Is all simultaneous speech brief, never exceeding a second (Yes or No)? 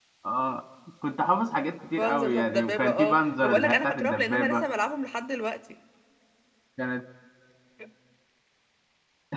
No